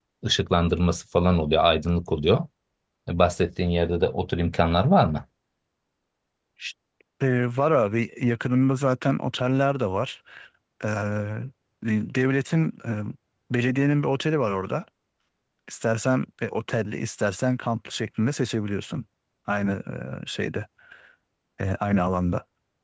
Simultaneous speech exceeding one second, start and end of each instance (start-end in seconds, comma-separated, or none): none